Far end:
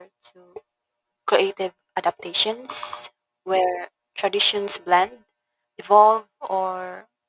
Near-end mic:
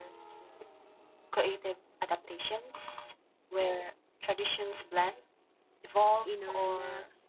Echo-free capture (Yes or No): No